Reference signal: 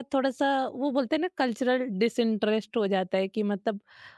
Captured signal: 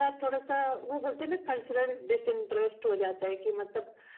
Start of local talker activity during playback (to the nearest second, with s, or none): none